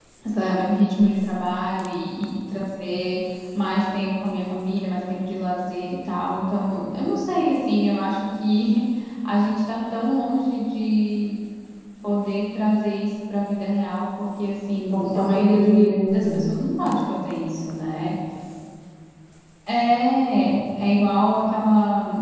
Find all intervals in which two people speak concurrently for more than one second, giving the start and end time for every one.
14.9-16.5

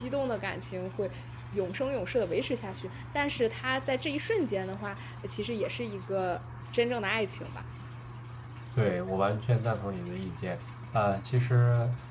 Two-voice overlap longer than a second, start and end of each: none

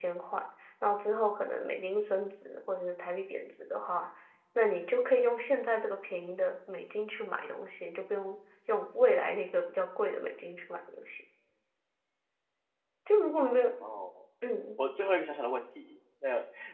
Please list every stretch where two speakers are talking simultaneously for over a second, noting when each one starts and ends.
none

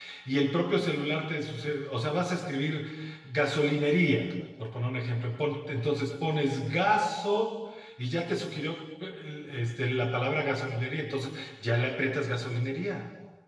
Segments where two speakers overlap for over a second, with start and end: none

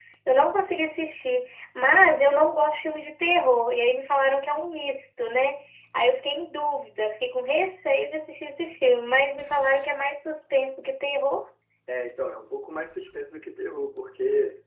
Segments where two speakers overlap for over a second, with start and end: none

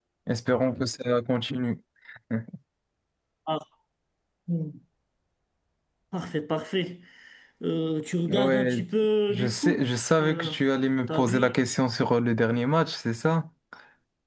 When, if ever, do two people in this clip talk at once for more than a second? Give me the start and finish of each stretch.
9.3-10.5

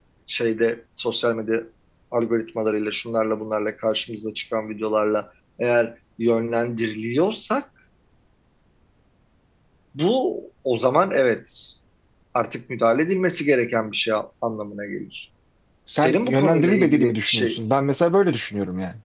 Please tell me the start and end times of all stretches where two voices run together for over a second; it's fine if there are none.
15.9-17.6

